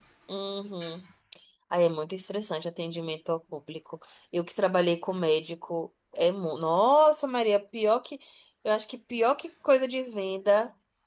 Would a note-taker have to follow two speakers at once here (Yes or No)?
No